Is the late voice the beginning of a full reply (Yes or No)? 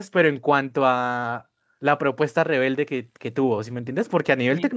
No